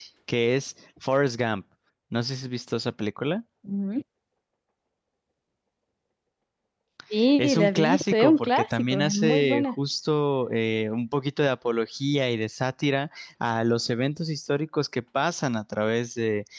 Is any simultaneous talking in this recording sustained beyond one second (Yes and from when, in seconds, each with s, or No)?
Yes, from 7.4 s